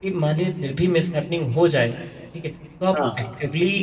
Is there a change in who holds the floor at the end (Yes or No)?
No